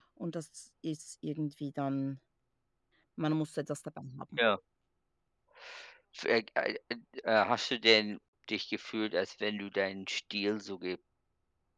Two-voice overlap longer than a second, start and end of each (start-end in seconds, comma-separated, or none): none